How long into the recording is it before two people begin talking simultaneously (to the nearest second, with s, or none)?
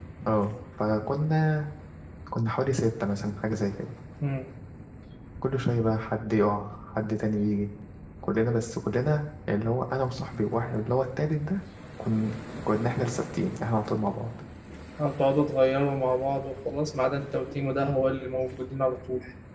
none